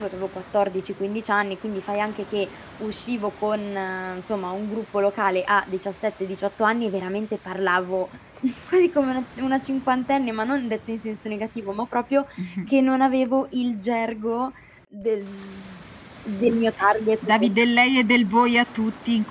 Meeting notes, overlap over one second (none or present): none